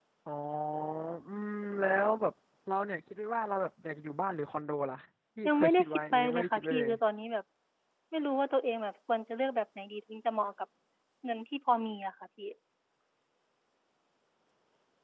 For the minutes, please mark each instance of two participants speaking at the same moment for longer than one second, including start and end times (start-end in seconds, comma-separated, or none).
5.5-6.9